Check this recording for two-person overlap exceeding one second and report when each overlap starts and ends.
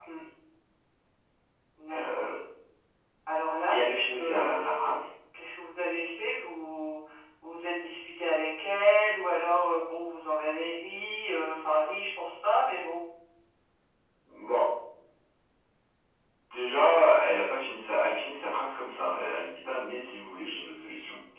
3.7-5.0

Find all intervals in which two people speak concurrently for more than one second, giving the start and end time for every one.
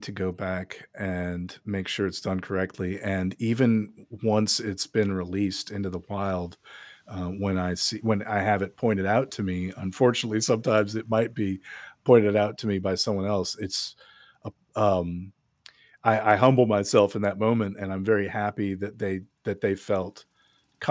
none

